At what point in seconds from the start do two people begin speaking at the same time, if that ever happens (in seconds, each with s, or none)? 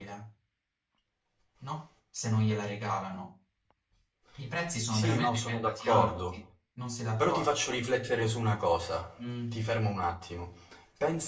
4.9 s